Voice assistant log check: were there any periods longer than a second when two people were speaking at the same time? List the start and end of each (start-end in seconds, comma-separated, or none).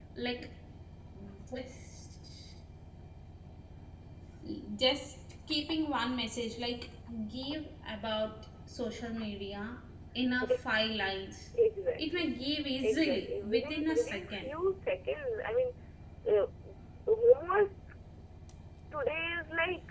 12.8-14.5